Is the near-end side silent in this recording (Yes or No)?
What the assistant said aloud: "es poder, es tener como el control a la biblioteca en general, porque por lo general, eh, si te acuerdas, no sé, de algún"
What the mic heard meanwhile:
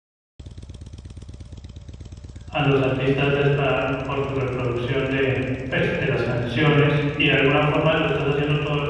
No